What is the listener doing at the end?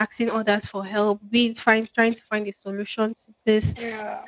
listening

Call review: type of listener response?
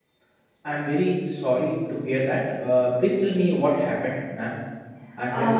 taking over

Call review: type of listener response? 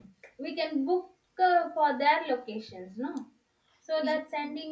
listening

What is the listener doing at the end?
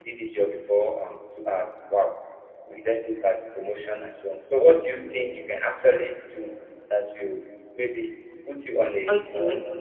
taking over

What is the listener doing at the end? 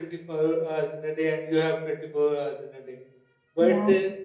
listening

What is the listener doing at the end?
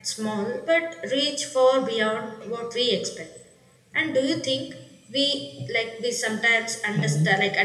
listening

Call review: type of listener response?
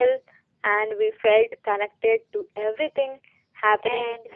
taking over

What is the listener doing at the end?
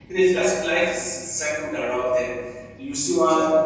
listening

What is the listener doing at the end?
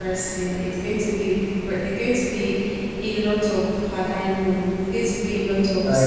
taking over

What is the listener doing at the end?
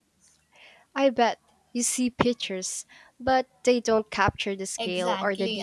taking over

